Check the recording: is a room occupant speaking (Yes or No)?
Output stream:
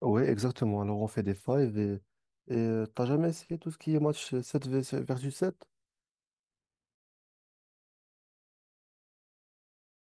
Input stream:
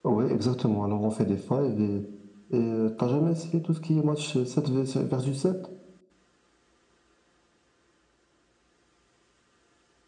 No